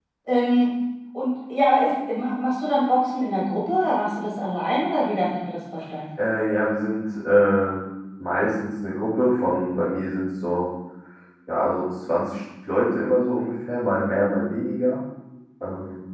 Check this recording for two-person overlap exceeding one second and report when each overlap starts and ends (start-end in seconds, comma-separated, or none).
none